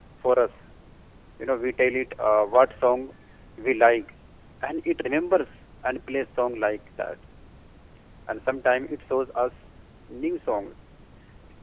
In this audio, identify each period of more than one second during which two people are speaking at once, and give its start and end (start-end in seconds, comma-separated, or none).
none